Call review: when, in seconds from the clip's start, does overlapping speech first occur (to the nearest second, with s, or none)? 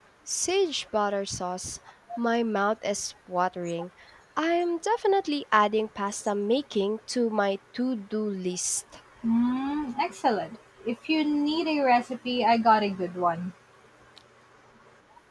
none